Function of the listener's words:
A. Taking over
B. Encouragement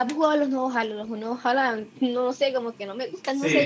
A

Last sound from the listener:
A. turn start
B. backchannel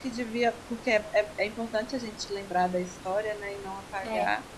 B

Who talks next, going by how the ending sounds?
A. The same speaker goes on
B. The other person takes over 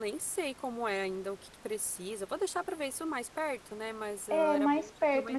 B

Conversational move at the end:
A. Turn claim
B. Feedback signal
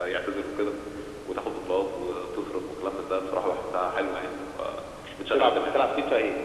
A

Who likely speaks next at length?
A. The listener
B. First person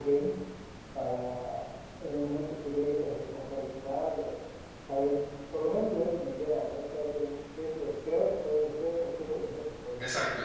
A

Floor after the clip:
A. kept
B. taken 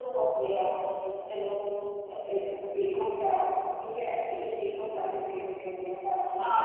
B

